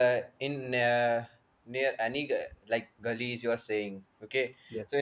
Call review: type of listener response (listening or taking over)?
listening